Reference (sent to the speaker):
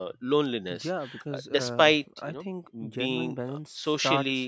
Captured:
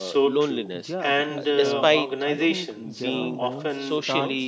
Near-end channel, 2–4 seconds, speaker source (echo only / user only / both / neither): both